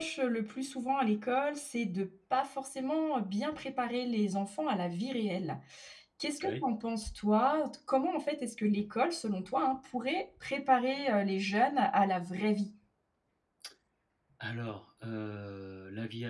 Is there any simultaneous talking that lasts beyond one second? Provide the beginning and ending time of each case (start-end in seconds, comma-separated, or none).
none